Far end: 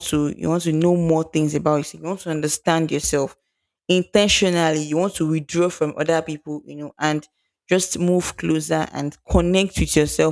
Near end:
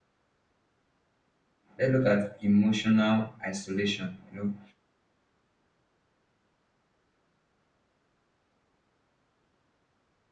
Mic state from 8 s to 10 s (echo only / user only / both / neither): neither